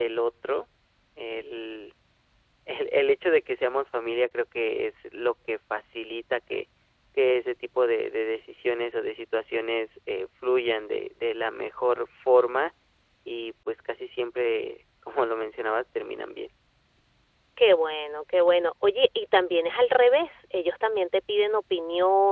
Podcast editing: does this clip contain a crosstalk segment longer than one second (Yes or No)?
No